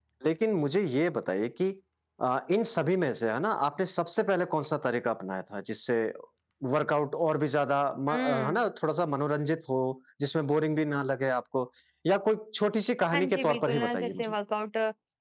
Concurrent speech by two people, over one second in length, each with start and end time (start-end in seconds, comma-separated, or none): 13.1-14.3